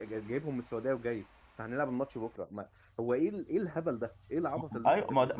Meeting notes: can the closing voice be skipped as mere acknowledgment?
No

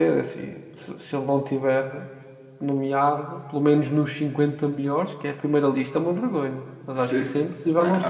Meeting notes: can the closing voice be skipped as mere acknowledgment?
No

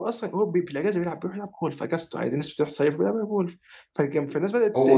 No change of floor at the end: No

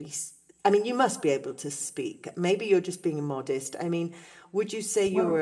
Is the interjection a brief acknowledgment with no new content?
Yes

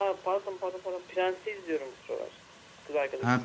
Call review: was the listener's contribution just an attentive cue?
No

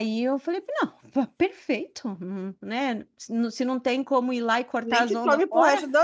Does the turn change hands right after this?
Yes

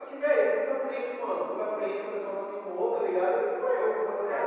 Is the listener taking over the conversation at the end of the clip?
Yes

